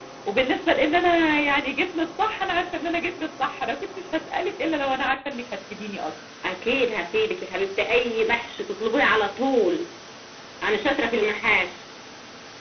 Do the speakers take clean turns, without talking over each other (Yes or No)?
Yes